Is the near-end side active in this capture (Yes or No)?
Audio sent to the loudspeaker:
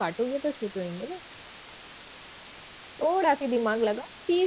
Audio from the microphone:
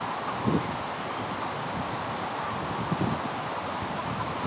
No